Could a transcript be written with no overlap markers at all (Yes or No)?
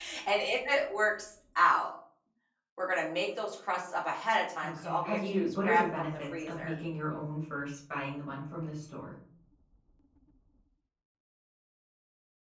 No